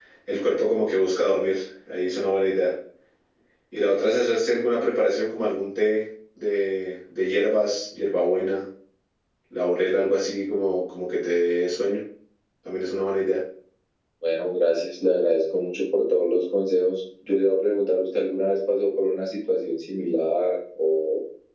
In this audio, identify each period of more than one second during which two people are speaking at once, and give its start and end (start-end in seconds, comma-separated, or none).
none